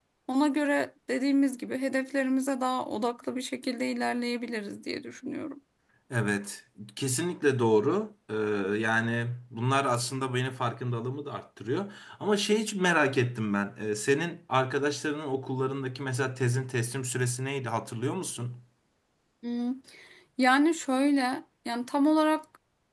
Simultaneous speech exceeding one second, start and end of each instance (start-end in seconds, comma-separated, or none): none